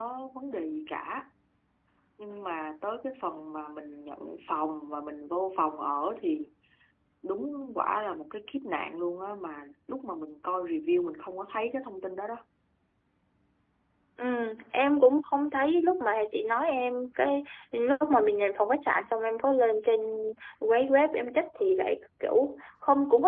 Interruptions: none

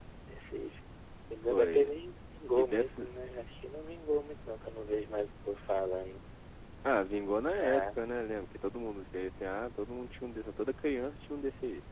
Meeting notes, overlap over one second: none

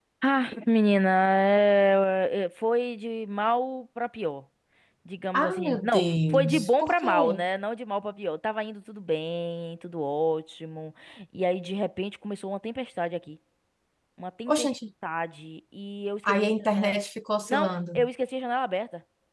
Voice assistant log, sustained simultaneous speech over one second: present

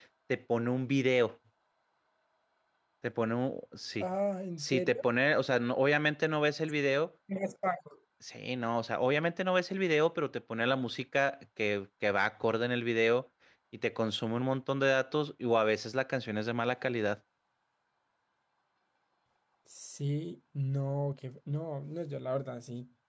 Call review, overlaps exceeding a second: none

